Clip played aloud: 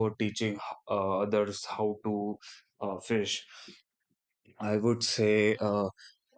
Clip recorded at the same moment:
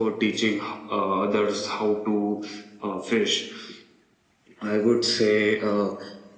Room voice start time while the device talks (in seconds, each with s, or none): none